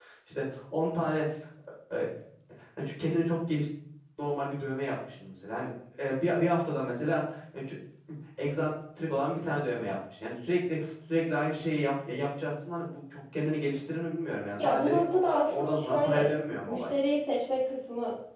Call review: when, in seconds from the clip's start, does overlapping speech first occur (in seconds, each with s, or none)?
14.6 s